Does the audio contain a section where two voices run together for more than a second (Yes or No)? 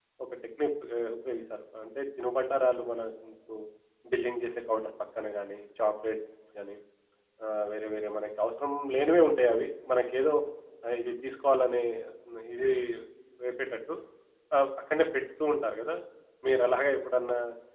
No